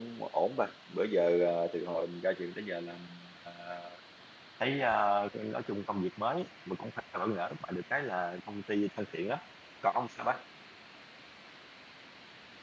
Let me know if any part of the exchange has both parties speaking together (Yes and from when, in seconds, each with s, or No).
No